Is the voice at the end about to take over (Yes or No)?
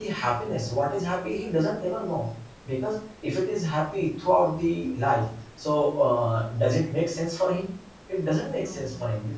No